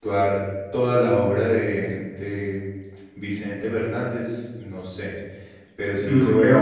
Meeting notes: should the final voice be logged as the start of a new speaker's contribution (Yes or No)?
No